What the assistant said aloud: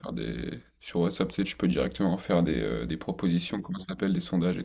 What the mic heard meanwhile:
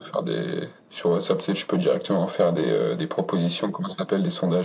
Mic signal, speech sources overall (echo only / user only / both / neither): echo only